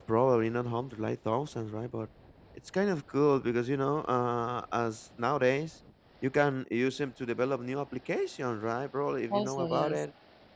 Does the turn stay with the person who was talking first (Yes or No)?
Yes